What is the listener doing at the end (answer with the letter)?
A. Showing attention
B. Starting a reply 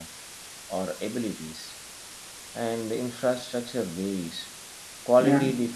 A